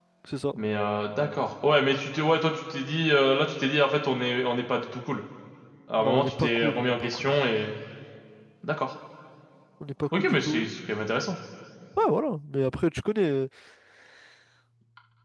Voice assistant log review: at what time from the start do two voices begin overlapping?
6 s

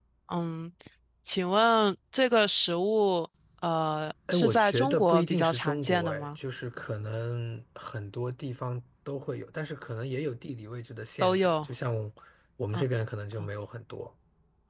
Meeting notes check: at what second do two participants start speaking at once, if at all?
4 s

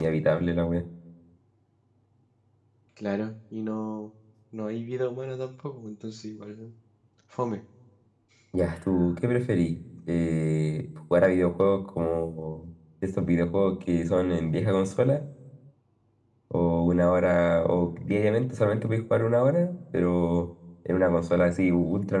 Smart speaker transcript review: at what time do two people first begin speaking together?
none

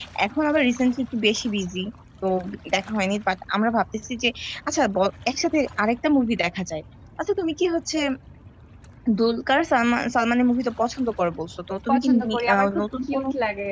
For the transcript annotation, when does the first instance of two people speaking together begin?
12 s

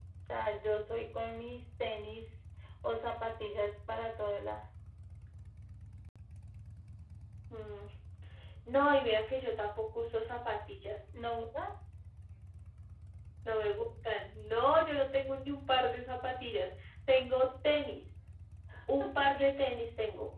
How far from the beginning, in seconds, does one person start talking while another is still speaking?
none

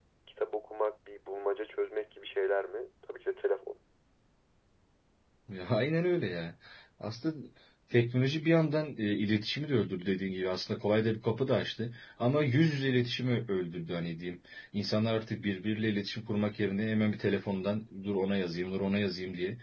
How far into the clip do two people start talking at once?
none

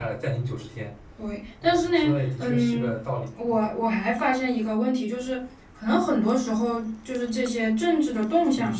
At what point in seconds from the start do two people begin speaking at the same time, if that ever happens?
2 s

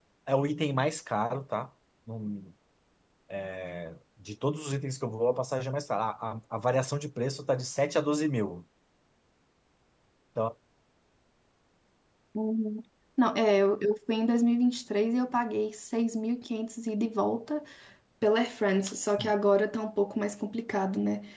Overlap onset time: none

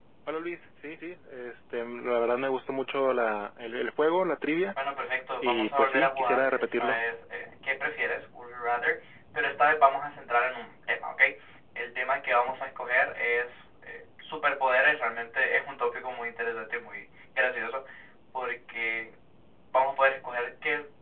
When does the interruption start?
5 s

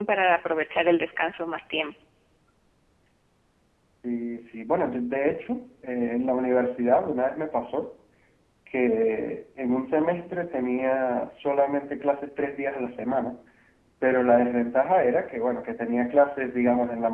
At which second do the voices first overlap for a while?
none

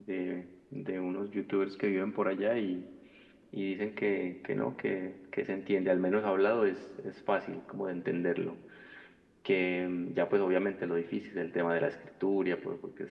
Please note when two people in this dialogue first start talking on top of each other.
none

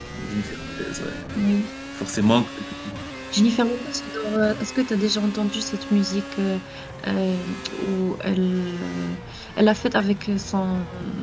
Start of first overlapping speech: none

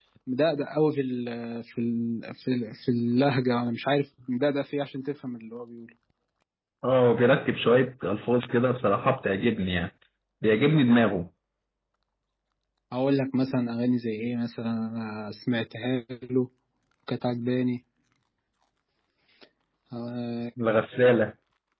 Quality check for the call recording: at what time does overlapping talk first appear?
none

